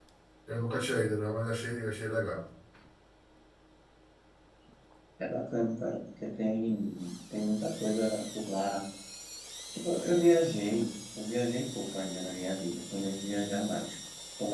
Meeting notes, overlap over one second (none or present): none